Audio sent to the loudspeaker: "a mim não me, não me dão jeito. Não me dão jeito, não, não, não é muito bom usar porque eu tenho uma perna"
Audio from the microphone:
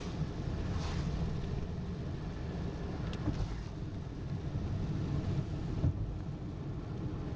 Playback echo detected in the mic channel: No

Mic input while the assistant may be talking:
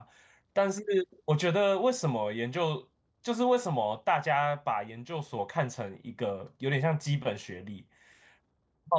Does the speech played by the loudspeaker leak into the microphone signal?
No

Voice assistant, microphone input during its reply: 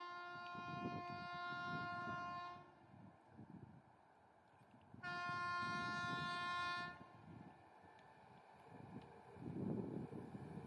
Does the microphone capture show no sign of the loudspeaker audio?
Yes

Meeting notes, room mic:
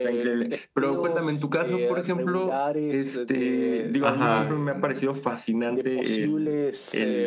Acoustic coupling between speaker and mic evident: Yes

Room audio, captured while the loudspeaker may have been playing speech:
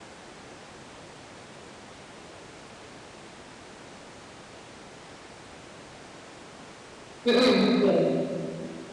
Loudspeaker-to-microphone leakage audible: No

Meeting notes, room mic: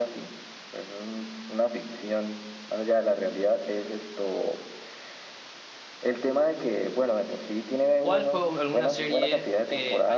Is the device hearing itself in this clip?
Yes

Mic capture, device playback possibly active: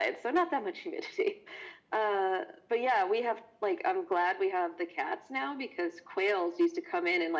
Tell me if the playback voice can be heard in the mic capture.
Yes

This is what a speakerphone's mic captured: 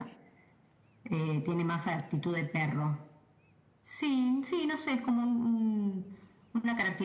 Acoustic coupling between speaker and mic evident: Yes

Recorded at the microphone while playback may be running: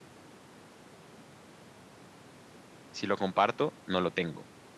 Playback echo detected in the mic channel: No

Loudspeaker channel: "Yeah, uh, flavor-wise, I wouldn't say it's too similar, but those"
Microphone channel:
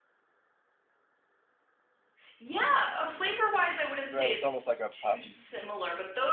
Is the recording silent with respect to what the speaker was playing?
No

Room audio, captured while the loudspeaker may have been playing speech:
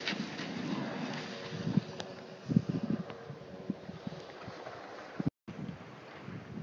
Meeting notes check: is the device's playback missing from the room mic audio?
Yes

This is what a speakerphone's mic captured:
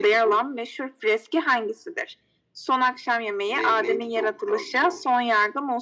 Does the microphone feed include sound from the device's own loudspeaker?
Yes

